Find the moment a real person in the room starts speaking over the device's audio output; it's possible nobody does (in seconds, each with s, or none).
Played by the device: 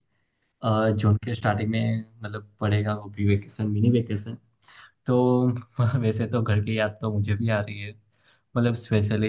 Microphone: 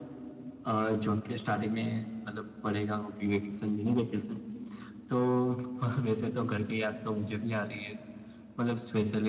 none